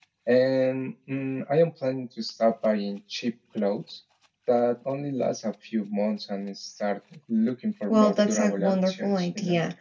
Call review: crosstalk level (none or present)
present